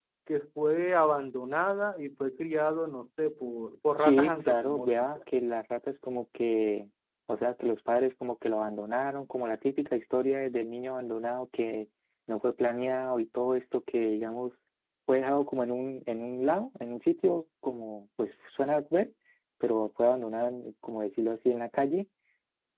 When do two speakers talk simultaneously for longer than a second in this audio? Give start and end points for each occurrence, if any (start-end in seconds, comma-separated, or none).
4.0-5.2